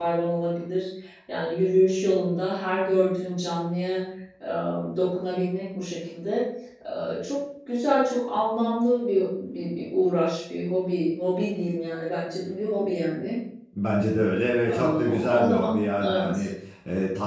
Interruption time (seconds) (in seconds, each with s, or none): 14.7 s